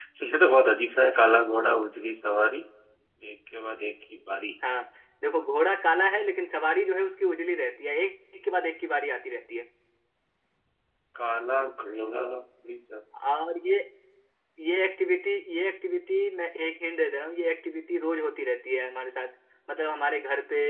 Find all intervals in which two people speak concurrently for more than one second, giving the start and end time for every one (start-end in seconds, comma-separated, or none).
none